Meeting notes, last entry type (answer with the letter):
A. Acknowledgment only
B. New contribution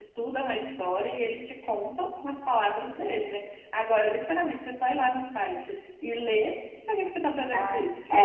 B